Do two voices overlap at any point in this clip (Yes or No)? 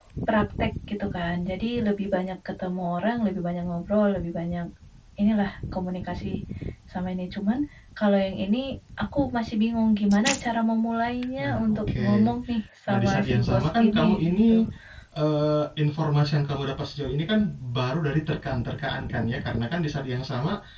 Yes